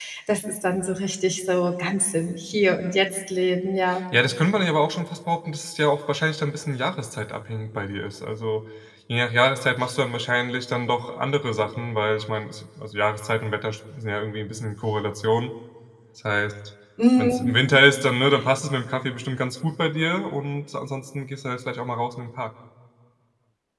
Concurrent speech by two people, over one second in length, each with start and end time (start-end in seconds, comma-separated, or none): none